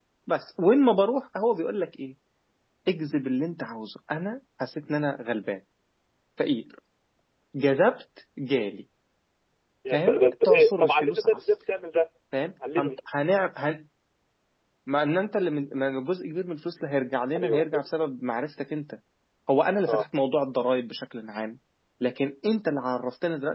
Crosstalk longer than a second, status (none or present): present